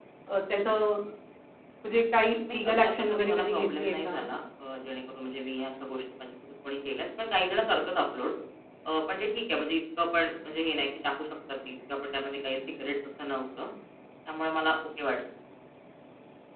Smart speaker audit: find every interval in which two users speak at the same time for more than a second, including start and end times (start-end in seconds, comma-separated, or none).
2.5-4.2